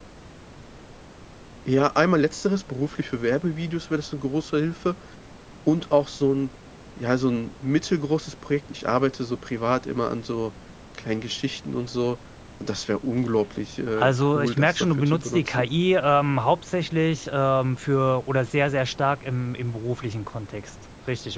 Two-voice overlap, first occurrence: 14 s

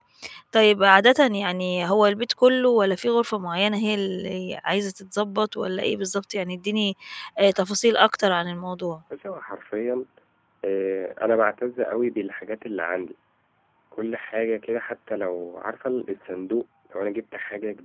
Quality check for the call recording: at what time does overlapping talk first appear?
none

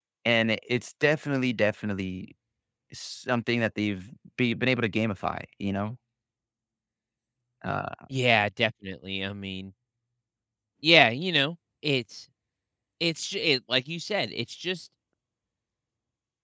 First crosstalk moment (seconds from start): none

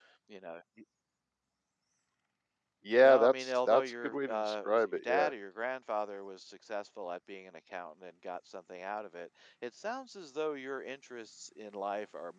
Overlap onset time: 3 s

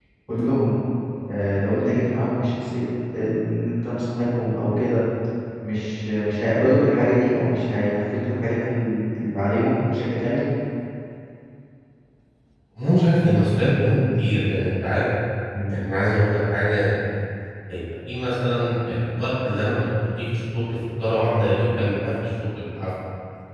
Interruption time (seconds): none

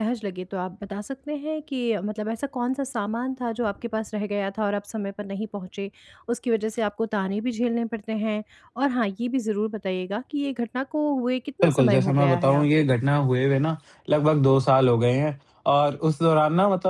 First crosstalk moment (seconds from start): 12 s

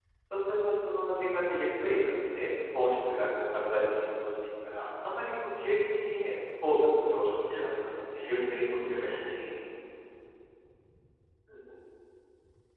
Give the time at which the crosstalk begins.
7 s

